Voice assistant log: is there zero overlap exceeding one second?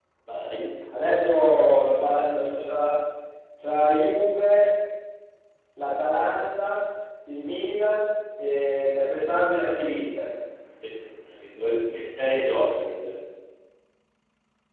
Yes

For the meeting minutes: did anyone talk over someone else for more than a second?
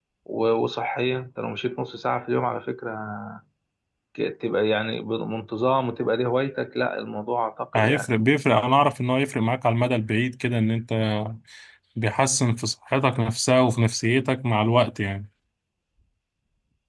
No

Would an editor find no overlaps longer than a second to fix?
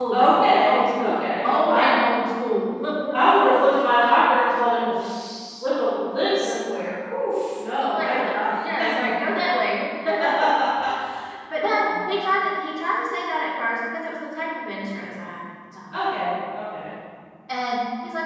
No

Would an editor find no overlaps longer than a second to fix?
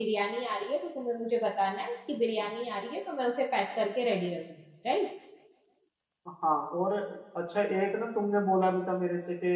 Yes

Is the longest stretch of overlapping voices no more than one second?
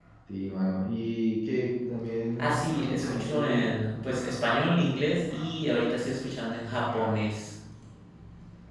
No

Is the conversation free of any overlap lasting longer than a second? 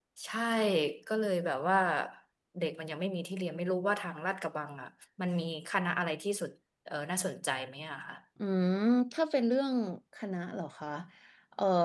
Yes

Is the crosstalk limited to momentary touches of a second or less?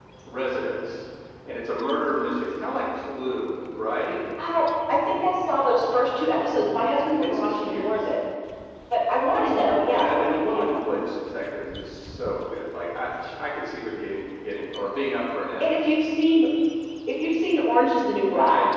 No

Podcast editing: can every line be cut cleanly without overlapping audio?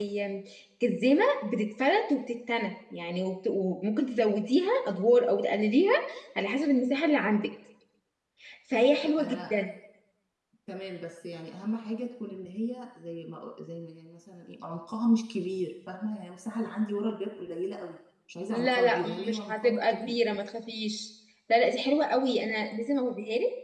No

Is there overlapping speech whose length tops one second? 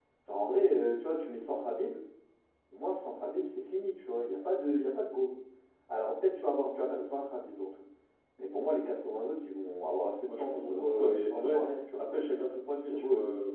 Yes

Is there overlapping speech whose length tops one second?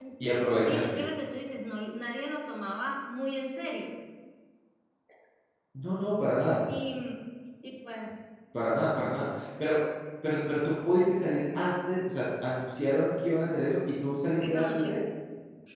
No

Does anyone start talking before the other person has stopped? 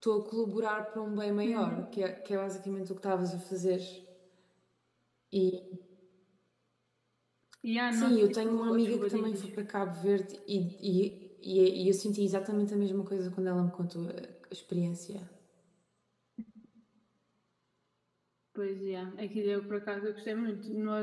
Yes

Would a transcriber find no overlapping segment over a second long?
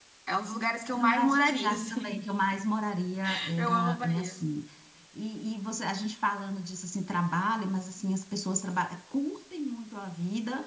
No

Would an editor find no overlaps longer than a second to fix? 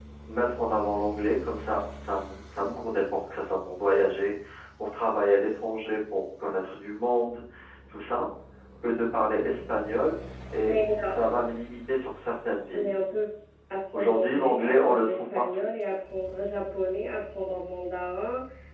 No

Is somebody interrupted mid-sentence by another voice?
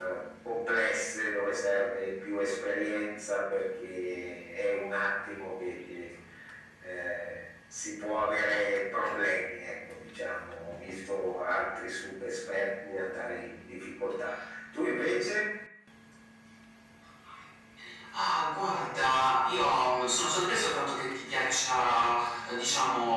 No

